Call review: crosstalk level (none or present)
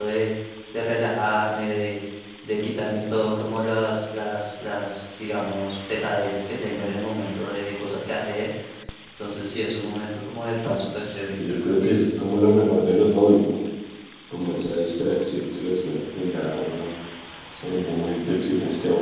none